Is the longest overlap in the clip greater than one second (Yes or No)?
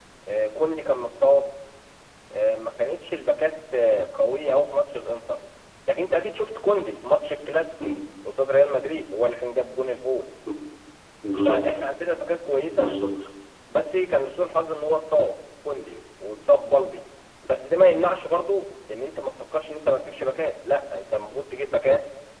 No